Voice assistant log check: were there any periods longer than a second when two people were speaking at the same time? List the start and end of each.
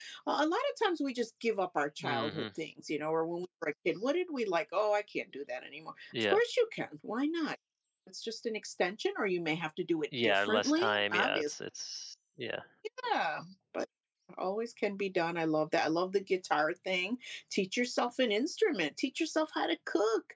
10.2-11.5

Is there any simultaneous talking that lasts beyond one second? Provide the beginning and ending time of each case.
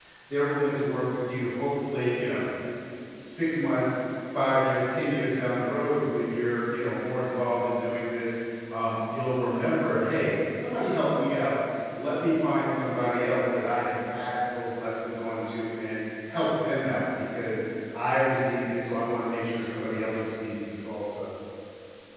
none

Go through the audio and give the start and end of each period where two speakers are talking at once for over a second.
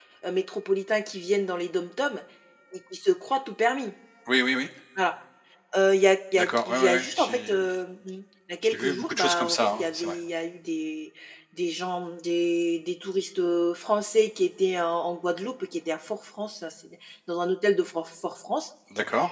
6.3-7.6, 8.6-10.2

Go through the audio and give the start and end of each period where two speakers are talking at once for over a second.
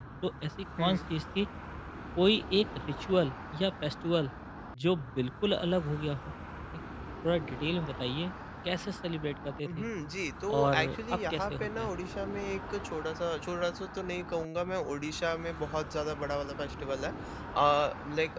10.6-11.9

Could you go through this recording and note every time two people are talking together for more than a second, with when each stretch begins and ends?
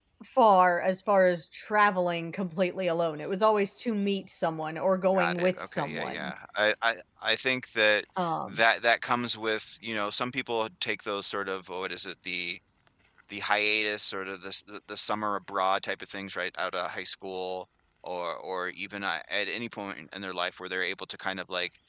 5.1-6.3

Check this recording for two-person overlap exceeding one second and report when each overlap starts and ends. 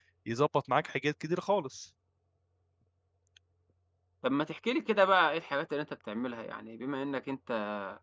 none

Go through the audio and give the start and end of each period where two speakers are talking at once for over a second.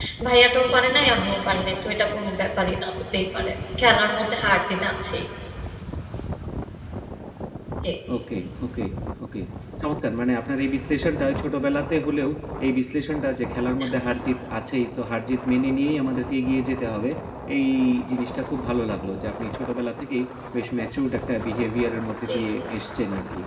none

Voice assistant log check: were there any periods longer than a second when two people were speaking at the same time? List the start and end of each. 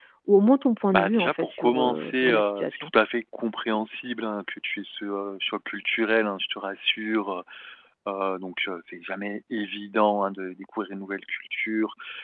0.9-2.9

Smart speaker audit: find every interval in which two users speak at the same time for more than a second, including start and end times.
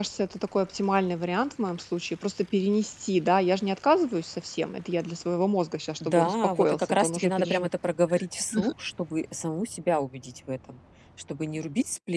6.0-7.7

